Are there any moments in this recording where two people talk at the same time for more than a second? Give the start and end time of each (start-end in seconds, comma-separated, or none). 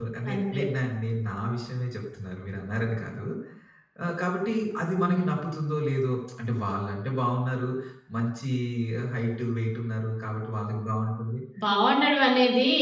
none